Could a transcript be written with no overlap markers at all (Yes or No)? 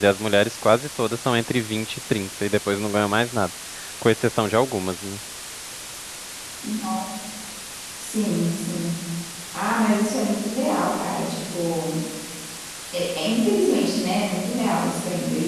Yes